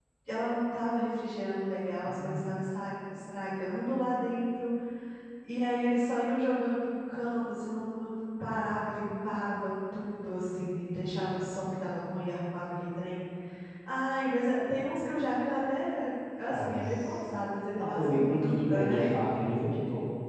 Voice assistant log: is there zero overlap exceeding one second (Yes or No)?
No